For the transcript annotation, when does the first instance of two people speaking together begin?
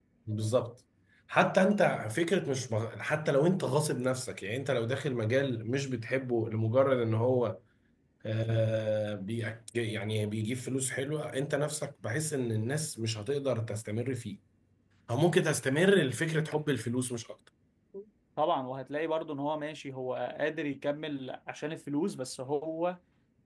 none

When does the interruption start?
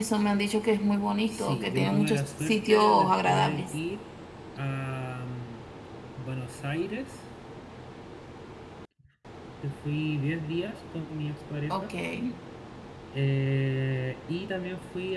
1.3 s

